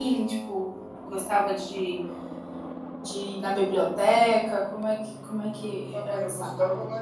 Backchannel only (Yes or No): No